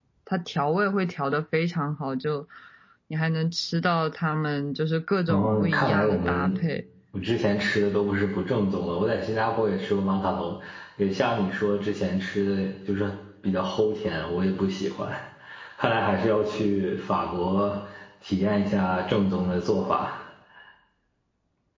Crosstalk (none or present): present